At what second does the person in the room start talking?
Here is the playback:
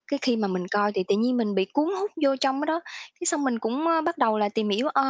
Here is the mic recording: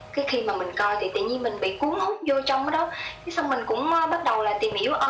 none

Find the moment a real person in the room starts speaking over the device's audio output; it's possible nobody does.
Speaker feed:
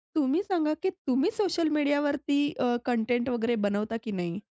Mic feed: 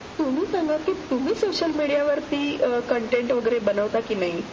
none

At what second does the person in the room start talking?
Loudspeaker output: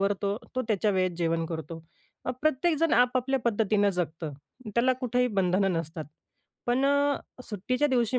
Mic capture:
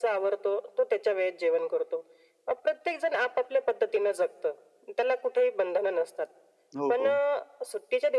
6.8 s

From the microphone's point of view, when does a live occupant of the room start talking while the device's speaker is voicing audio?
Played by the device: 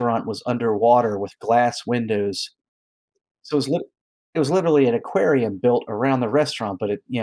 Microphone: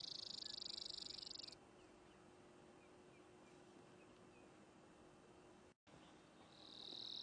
none

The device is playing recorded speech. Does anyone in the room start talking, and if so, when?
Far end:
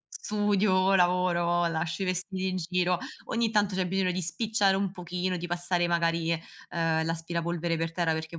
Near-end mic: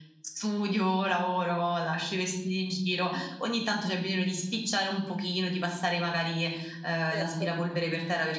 7.1 s

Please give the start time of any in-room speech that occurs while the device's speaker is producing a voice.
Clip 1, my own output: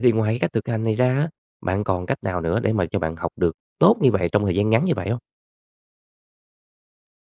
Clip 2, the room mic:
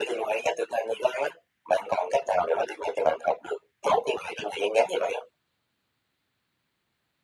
none

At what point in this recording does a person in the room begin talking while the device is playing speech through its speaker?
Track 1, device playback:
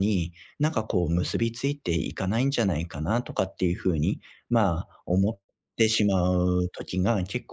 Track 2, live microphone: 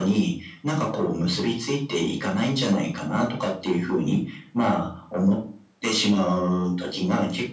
none

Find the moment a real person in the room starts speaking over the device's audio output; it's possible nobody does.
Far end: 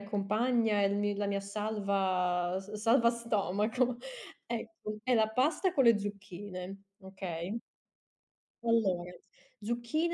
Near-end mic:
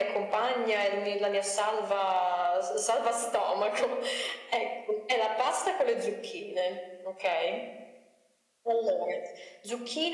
none

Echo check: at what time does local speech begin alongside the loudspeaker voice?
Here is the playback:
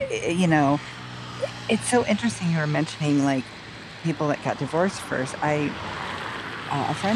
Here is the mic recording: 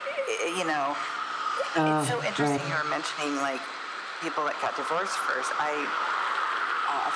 1.8 s

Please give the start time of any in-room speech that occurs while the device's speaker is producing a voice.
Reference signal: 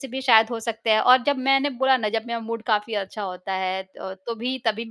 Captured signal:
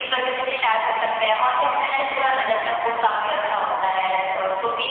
none

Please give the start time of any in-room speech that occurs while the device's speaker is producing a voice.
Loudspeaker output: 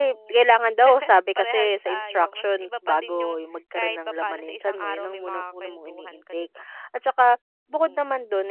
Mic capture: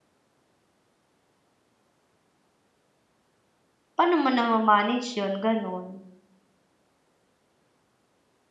4.0 s

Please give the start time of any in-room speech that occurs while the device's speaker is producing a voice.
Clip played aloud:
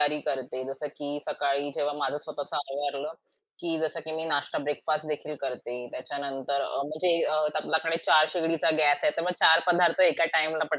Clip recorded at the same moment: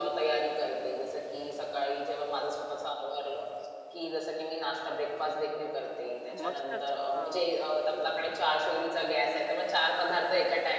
6.3 s

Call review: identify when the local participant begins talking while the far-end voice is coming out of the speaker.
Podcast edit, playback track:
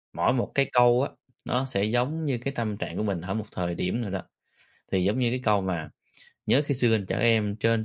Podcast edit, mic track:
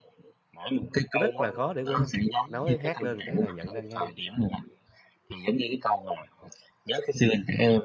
1.2 s

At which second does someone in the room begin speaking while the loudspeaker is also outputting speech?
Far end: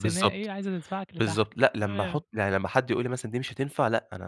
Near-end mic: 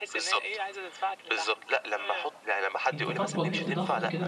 2.9 s

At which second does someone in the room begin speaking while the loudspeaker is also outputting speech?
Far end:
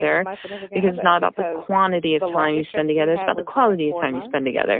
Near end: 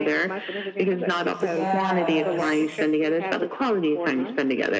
1.3 s

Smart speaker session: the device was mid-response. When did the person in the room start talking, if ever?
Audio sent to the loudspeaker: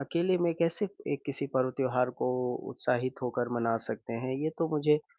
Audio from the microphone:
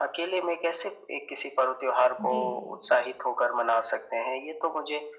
2.2 s

